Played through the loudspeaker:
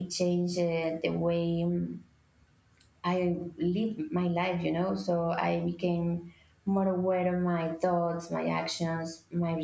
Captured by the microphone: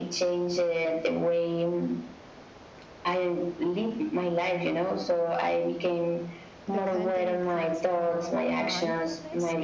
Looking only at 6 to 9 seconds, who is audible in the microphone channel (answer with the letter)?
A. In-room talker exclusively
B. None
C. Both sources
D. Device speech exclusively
C